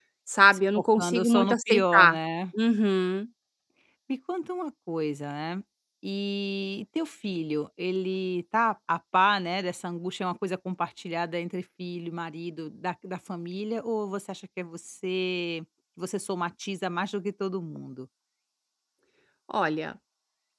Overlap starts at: 0.8 s

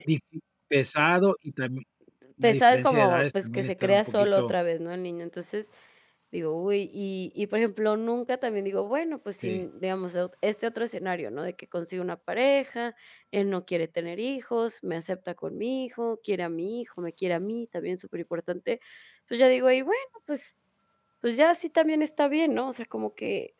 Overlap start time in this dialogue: 2.4 s

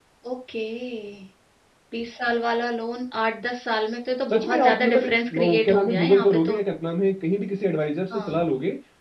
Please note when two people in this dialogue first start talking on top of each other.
4.3 s

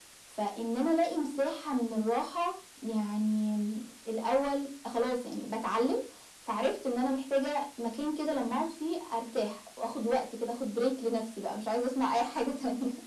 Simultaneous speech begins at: none

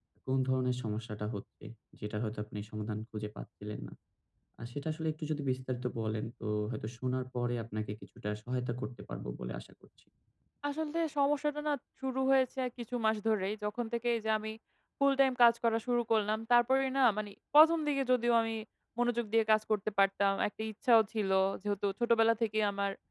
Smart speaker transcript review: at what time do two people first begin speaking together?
none

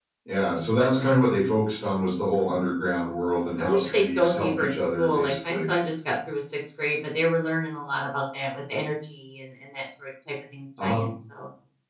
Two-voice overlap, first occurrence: 3.6 s

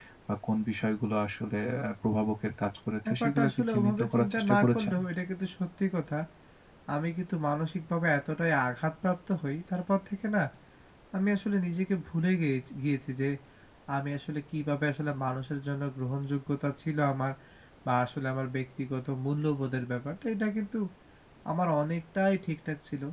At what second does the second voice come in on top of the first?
3.0 s

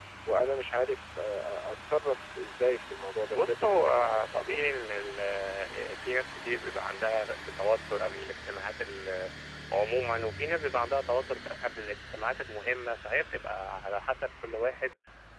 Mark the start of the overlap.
3.3 s

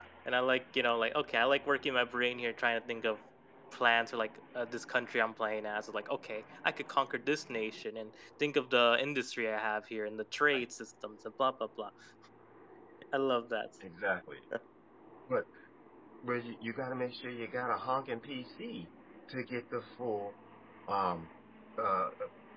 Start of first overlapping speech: none

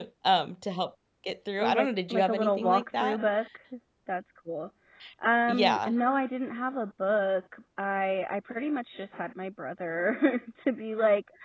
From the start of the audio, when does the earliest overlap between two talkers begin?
1.6 s

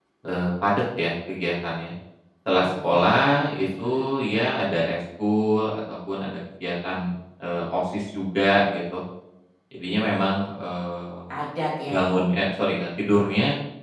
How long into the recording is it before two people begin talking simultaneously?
2.6 s

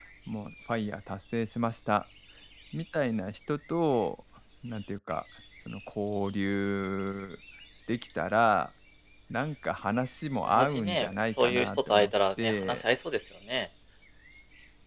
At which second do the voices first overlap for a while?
10.4 s

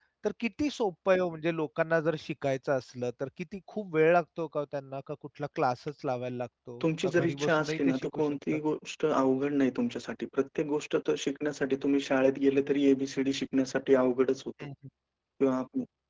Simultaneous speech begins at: 6.8 s

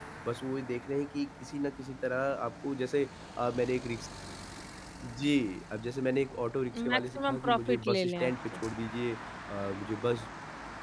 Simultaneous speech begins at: 6.7 s

